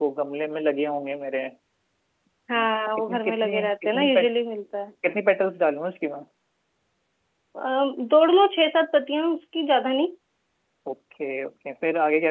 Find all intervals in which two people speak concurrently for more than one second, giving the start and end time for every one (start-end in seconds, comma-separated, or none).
3.0-4.3